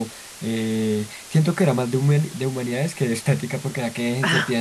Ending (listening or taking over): listening